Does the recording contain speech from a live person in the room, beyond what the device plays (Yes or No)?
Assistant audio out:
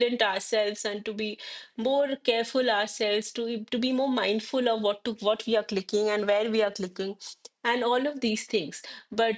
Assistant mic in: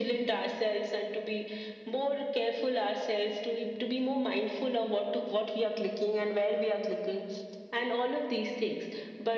No